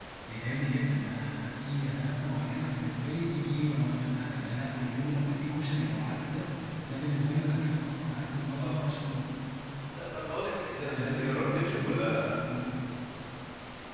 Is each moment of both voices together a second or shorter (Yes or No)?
No